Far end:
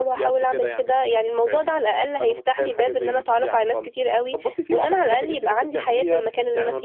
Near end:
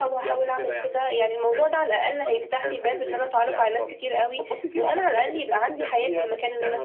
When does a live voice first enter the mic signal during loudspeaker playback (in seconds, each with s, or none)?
none